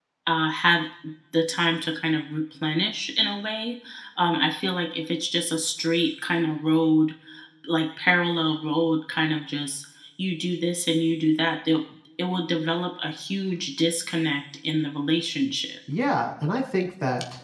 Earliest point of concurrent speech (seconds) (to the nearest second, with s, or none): none